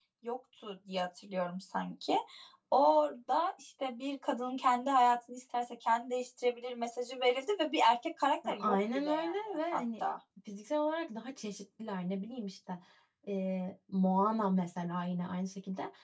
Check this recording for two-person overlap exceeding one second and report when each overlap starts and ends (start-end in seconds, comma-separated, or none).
8.5-10.0